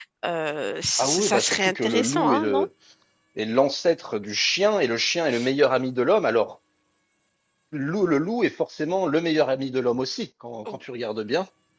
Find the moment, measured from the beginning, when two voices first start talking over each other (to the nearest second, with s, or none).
1 s